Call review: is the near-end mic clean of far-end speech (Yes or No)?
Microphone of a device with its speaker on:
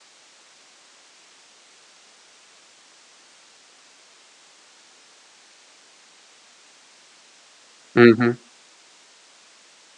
Yes